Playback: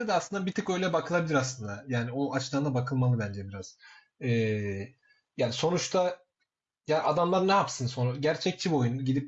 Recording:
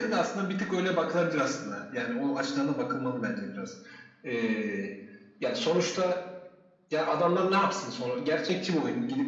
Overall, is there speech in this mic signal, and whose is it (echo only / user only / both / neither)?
echo only